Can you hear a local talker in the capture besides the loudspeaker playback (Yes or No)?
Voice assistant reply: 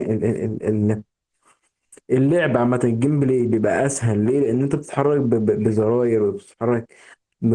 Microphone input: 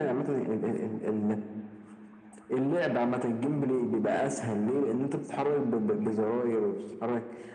No